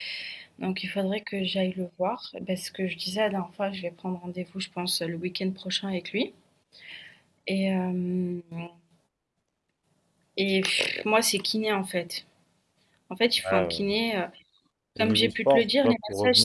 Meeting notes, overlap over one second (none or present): present